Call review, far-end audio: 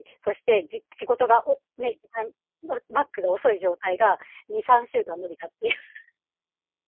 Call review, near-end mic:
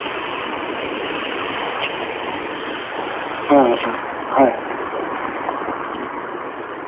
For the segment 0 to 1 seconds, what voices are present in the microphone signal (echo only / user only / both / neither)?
neither